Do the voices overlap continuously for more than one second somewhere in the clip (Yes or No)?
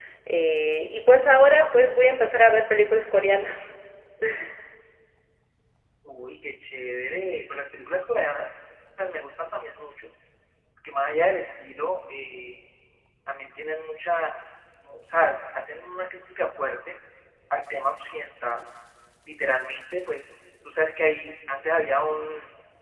No